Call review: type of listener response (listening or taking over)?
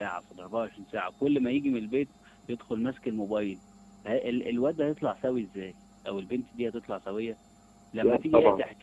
listening